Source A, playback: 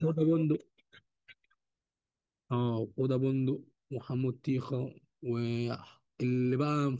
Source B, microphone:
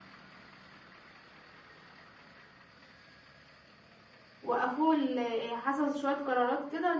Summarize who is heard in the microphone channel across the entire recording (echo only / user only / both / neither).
user only